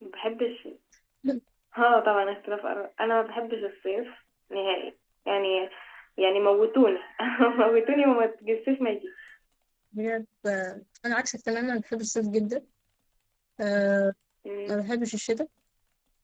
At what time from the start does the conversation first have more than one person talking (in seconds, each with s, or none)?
none